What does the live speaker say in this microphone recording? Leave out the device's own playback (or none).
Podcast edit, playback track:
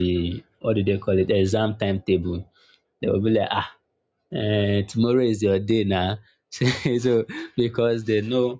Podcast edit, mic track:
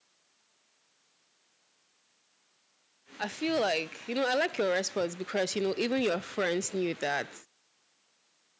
I feel like, you know, I like your response because, you know, even your friends knew that